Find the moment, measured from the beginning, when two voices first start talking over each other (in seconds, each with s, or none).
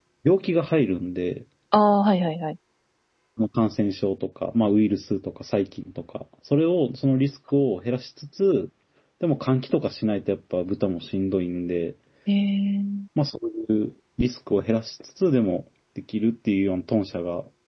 none